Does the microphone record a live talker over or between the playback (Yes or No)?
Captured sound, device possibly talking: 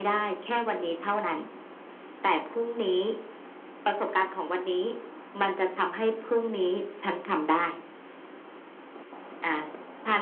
No